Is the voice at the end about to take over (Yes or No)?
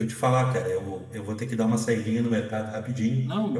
No